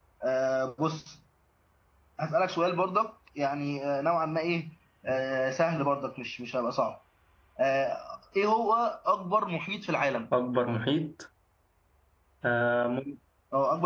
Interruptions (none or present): none